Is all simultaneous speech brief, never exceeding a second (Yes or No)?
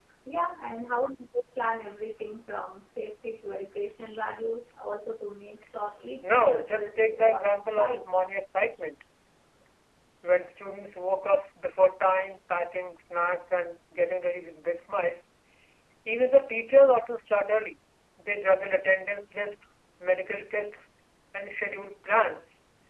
No